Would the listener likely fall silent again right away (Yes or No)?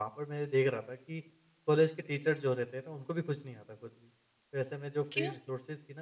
Yes